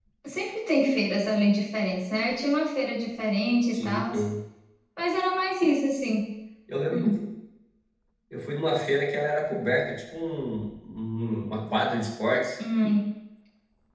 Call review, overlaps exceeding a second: none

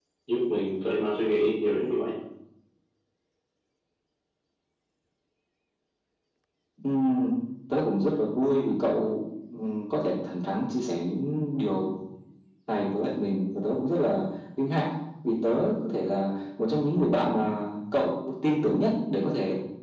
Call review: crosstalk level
none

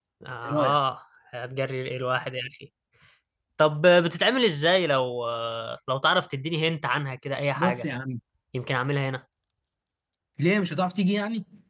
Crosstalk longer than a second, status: none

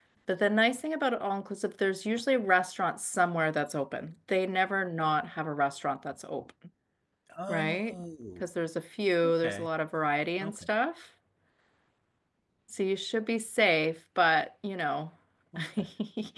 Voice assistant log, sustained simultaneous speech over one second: none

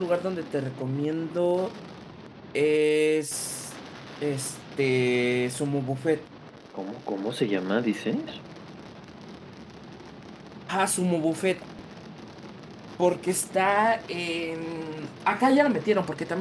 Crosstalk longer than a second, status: none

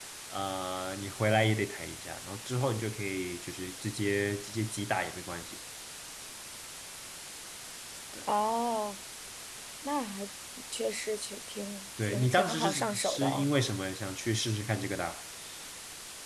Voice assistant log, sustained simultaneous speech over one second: present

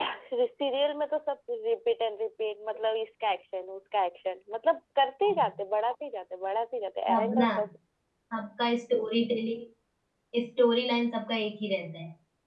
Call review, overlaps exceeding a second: none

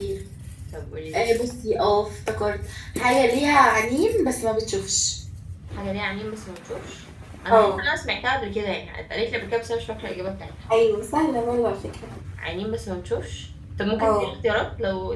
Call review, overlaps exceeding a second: none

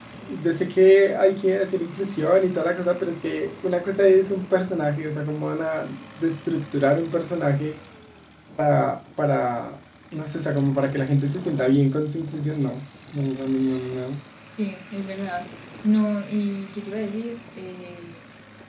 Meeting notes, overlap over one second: none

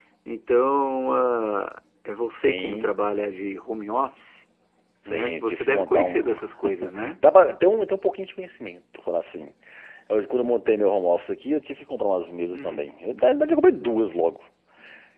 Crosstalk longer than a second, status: present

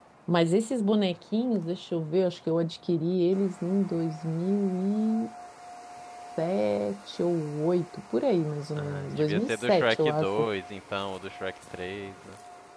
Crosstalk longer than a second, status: present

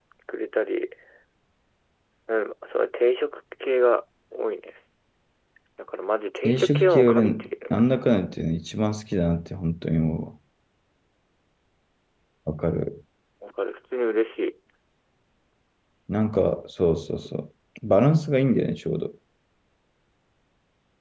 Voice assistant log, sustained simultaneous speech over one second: present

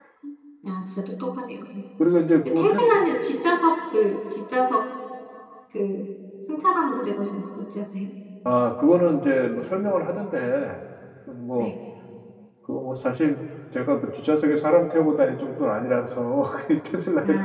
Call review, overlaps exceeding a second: none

